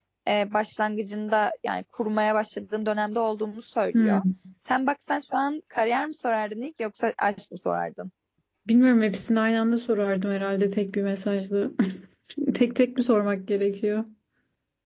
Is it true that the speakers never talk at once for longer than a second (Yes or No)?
Yes